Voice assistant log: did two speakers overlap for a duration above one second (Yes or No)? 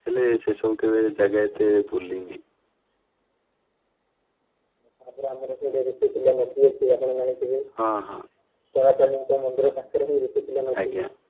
No